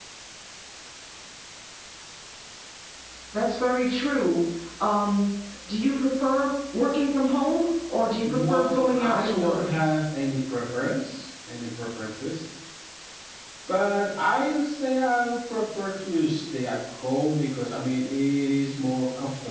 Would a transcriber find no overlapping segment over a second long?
No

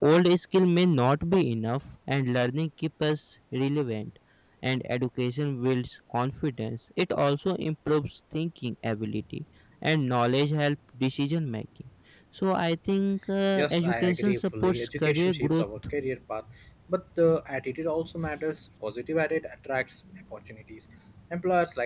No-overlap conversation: No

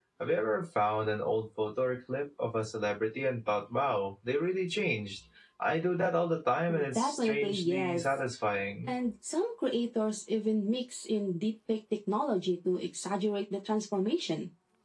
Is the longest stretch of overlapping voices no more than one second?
No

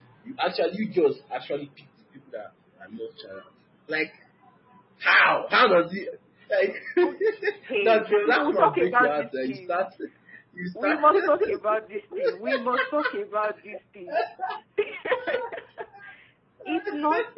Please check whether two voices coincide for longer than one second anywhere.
Yes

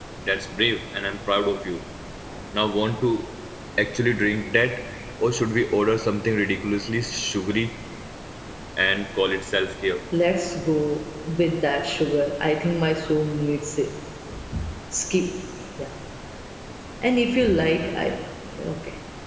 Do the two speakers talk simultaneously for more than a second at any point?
No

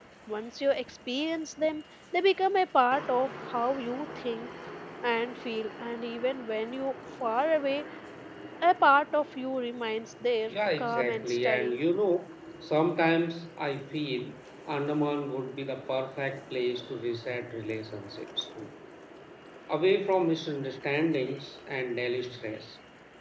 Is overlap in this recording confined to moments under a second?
No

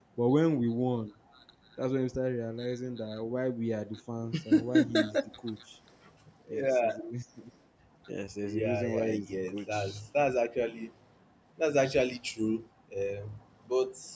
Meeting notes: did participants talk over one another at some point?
Yes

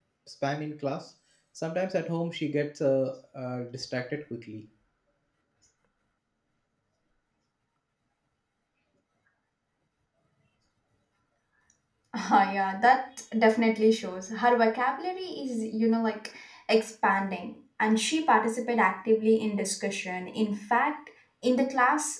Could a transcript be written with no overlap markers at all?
Yes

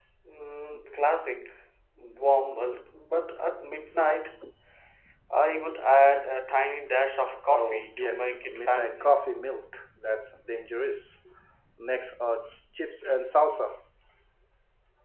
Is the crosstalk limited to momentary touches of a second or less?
No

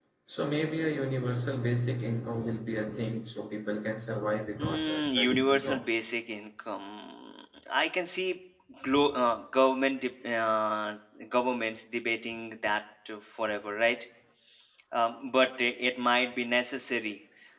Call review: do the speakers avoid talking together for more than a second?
No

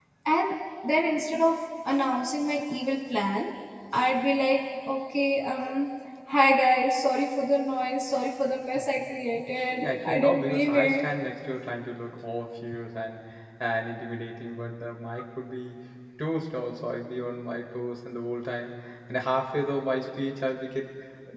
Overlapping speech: Yes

